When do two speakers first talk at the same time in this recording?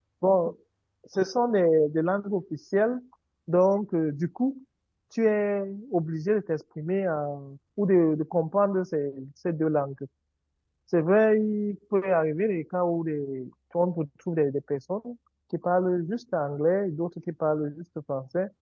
none

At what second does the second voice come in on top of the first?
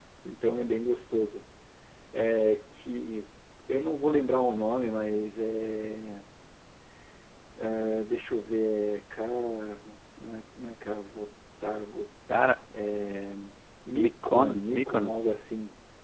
13.9 s

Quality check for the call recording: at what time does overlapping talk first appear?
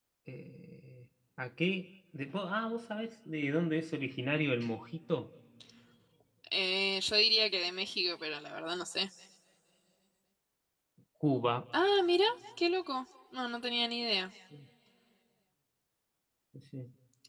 none

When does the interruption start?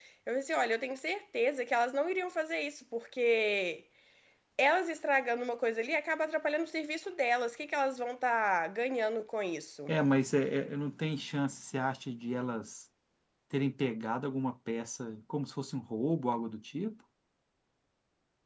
none

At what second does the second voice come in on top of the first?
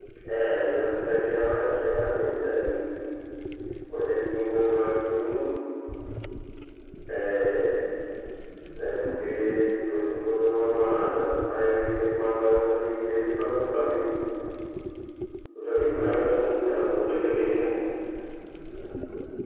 16.0 s

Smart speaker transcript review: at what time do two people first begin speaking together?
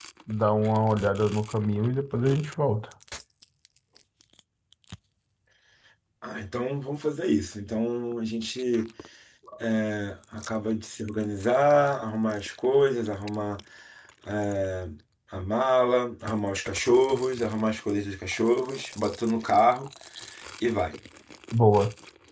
none

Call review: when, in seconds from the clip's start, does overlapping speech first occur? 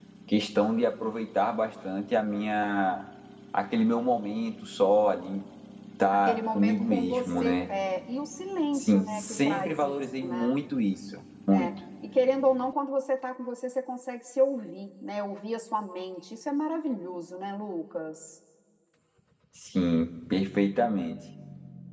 6.1 s

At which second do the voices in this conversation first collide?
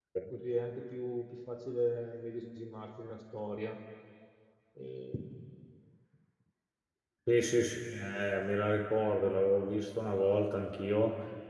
none

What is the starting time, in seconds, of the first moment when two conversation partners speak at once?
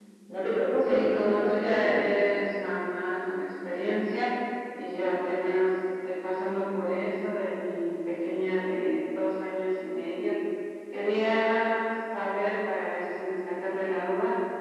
0.8 s

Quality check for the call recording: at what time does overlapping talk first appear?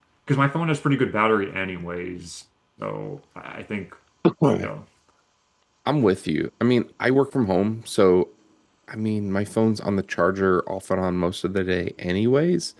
none

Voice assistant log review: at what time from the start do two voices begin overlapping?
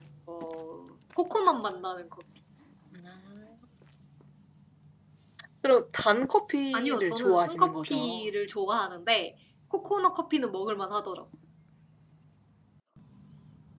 6.7 s

